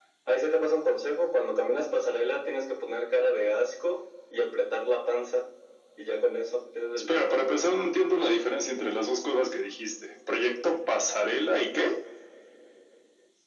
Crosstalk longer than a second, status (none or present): none